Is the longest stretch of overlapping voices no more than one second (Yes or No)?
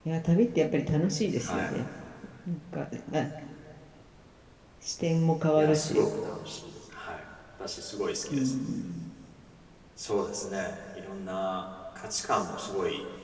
Yes